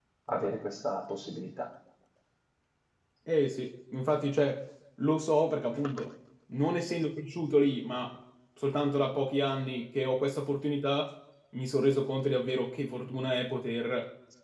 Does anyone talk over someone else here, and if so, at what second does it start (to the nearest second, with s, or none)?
none